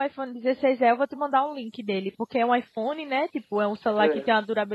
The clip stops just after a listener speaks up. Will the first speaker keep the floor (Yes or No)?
Yes